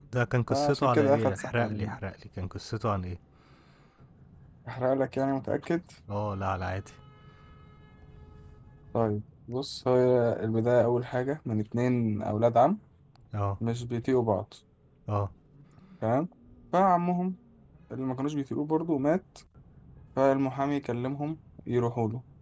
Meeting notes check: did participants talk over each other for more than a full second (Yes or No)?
Yes